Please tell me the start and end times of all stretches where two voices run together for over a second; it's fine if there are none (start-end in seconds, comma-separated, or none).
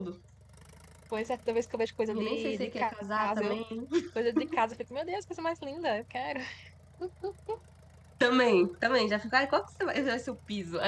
2.1-3.6